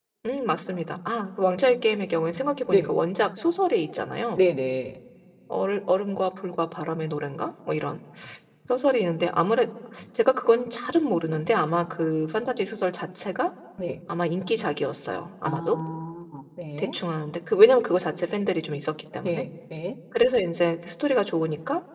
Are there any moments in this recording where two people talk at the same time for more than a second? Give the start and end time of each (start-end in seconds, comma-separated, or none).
none